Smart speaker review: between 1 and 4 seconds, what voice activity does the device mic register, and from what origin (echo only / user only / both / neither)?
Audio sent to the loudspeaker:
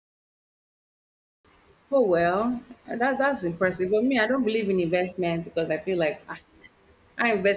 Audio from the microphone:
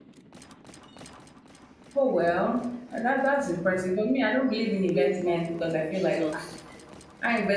echo only